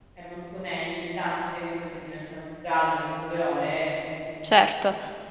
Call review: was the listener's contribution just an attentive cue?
No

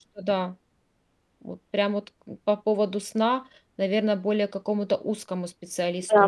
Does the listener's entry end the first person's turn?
Yes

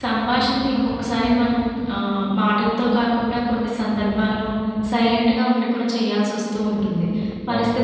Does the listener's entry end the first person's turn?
No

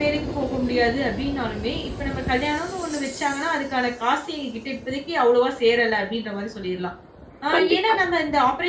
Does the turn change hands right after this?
No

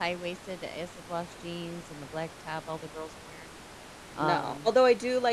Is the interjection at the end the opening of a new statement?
Yes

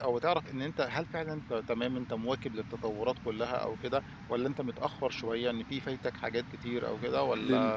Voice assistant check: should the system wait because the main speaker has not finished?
No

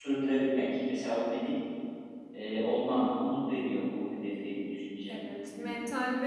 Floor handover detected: Yes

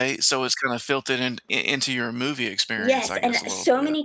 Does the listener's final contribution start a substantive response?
Yes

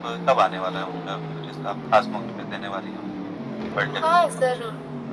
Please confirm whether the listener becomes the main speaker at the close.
Yes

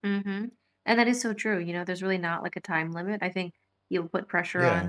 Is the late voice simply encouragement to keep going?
Yes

